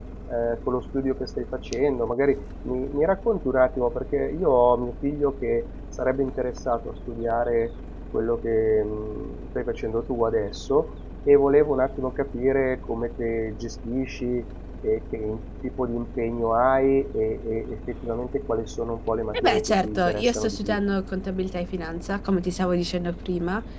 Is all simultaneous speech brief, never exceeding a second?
No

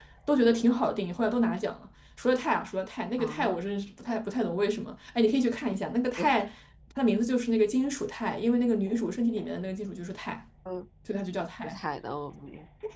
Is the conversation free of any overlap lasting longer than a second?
Yes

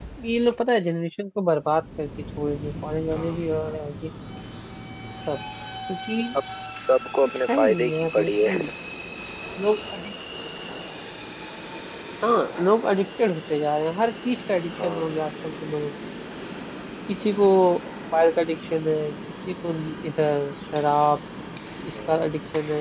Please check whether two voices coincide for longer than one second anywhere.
Yes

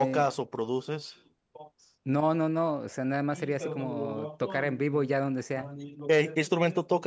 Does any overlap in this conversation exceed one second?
Yes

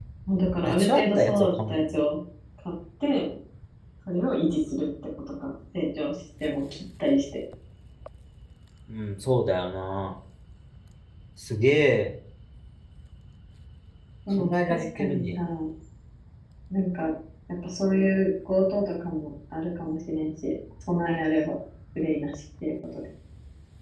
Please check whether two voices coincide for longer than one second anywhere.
Yes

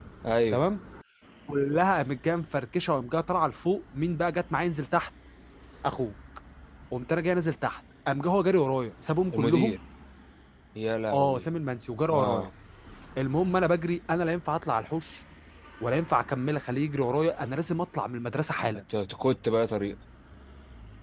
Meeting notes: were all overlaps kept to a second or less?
Yes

